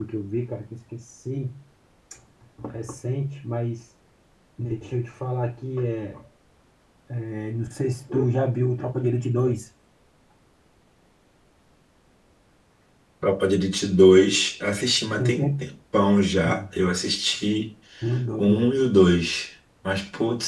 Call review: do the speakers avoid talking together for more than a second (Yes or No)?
Yes